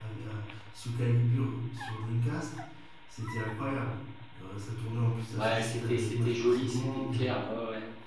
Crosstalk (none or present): present